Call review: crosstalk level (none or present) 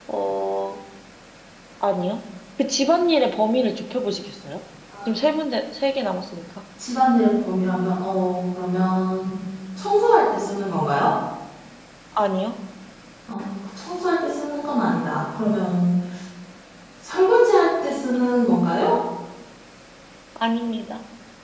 none